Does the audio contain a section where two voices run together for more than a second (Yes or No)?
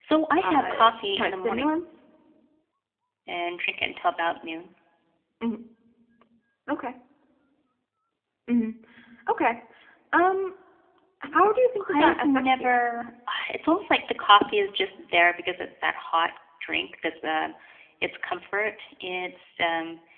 Yes